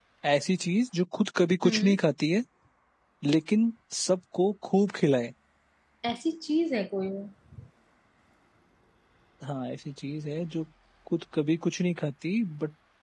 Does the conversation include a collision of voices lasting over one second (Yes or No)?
No